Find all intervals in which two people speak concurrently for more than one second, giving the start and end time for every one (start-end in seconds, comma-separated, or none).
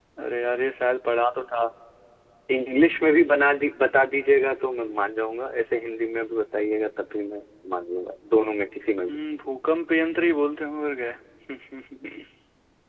none